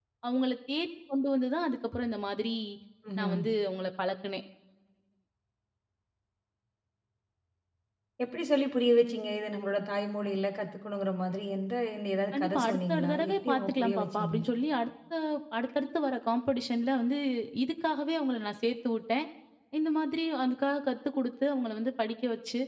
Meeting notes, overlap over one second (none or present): present